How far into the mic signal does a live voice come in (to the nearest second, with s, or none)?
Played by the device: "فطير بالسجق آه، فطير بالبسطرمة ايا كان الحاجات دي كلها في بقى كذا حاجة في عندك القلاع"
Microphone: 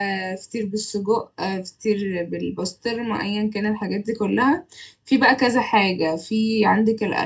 none